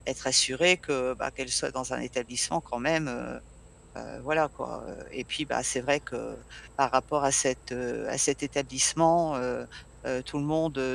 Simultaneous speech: No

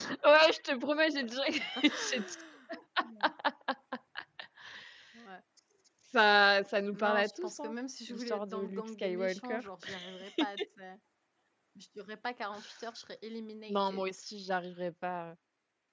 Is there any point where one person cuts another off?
Yes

